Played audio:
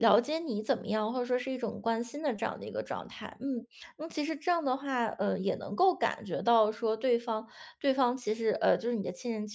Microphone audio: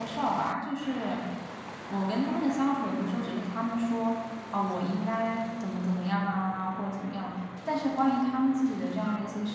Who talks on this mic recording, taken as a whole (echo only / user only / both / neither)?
user only